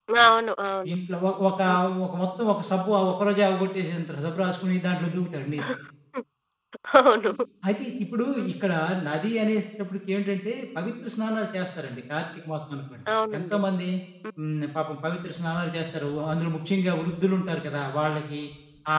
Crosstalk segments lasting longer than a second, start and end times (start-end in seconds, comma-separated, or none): none